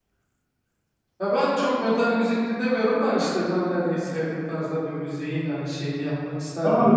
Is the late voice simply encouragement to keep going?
No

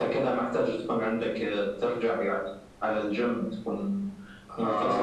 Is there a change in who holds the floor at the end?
Yes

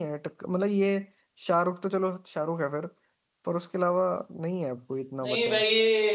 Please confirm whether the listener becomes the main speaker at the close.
Yes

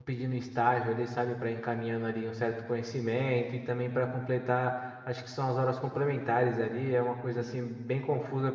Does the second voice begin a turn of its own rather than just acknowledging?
No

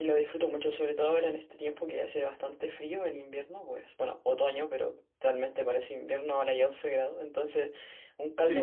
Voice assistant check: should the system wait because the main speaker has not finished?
No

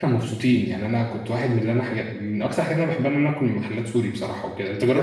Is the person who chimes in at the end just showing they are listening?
No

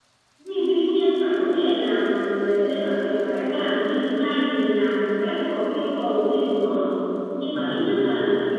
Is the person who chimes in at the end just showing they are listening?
Yes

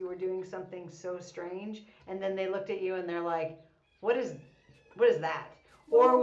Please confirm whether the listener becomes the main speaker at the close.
No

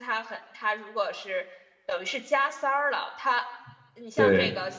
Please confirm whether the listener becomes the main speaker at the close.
No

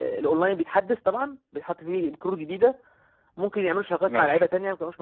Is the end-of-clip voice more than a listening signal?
No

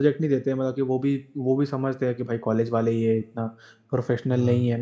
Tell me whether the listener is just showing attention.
Yes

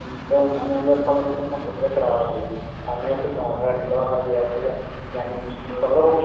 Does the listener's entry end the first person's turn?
No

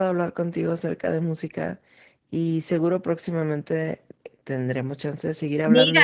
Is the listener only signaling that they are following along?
No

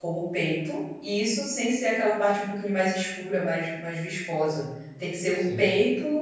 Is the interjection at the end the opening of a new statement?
No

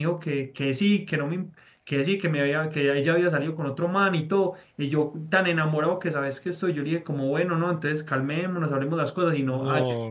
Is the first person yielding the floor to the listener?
No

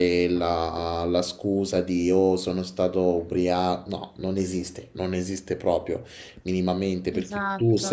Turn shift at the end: No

